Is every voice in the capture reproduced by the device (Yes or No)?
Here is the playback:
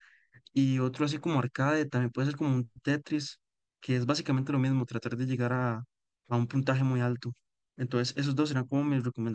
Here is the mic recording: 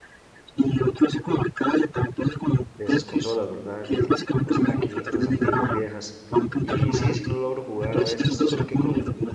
No